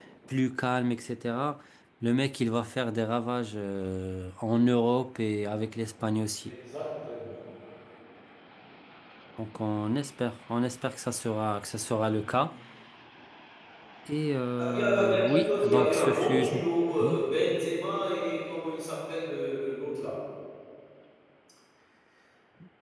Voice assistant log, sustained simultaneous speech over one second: present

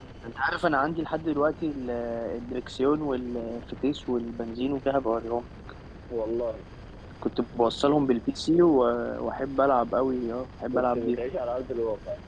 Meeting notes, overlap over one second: none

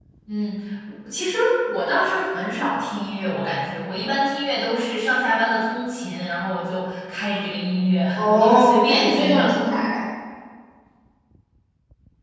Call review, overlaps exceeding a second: present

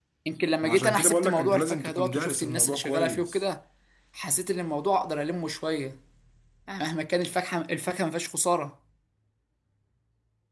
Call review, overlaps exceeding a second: present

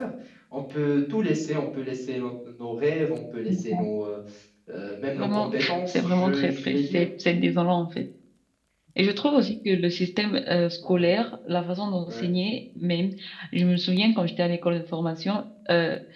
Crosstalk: present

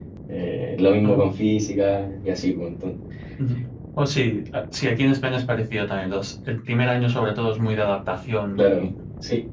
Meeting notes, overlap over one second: none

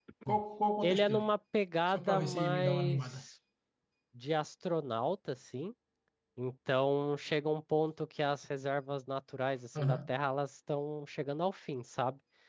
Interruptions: present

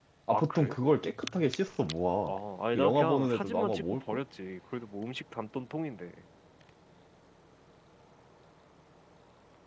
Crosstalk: present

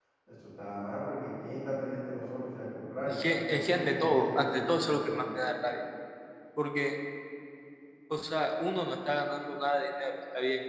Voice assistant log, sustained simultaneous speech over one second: present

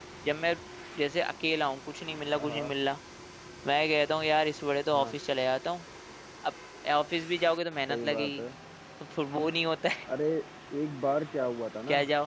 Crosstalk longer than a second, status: none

